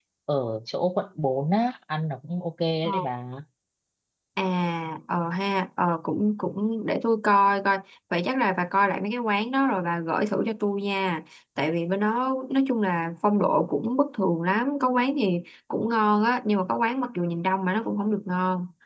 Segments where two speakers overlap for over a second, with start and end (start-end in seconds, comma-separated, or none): none